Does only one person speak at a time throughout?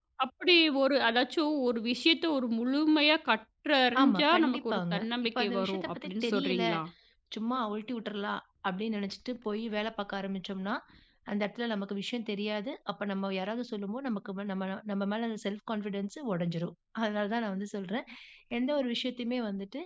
No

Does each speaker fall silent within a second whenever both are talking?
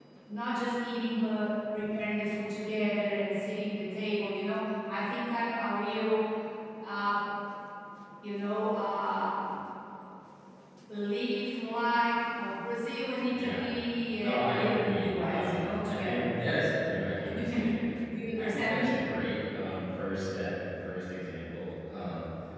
No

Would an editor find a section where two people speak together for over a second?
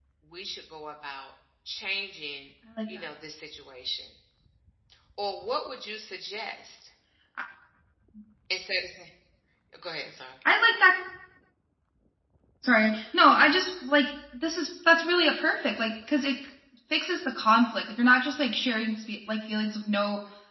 No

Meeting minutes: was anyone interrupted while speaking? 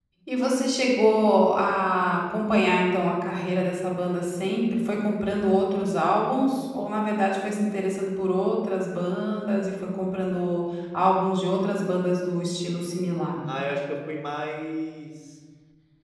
No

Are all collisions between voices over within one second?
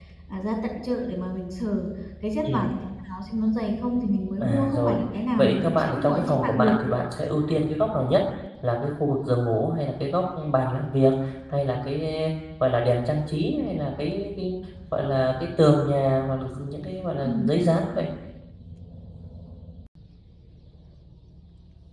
No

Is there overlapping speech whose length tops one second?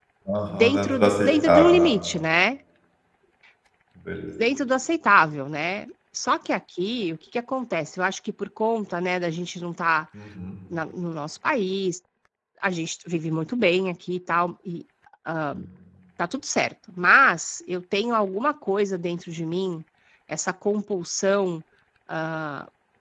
Yes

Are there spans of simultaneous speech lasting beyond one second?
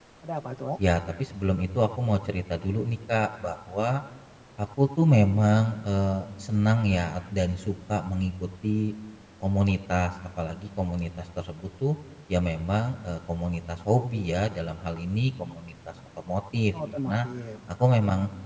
No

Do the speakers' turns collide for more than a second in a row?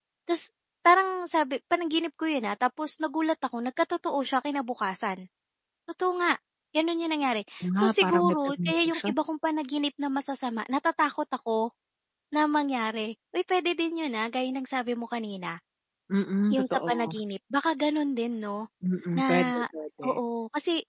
Yes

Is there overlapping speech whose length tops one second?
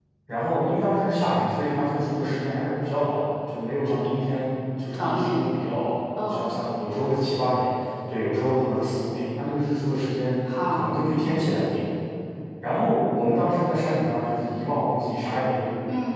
No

